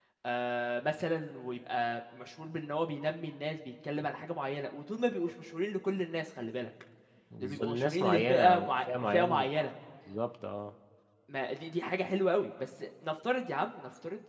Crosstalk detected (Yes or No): Yes